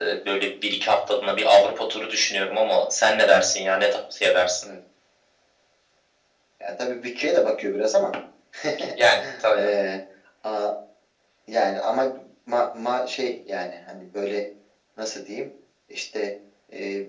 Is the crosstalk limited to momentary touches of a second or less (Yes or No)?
Yes